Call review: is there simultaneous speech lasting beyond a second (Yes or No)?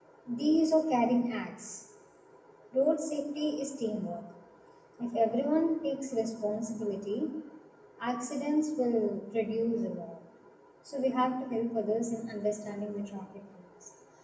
No